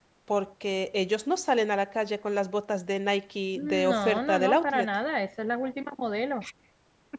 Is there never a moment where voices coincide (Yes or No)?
No